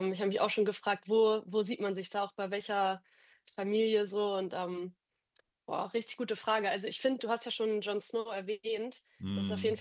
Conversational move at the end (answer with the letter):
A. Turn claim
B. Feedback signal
B